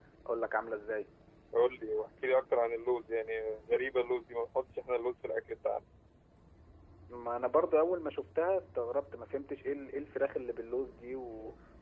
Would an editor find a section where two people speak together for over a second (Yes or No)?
No